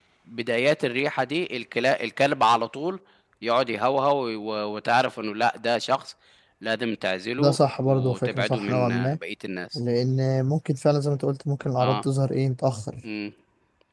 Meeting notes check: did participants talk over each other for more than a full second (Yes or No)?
Yes